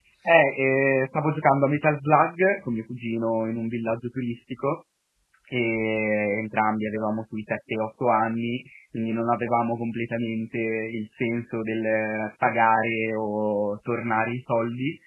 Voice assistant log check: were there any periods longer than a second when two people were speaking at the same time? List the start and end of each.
none

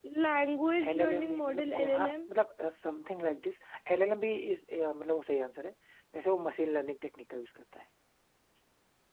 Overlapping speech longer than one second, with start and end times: 0.9-2.1

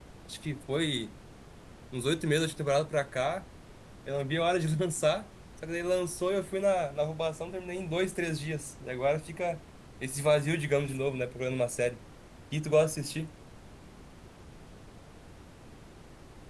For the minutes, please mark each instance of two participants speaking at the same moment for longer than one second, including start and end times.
none

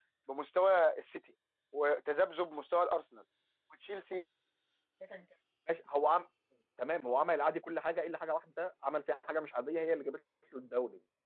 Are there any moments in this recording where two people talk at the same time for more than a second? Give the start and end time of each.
none

